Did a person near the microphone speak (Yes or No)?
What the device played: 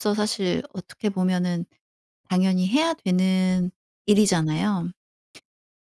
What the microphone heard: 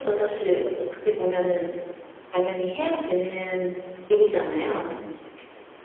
No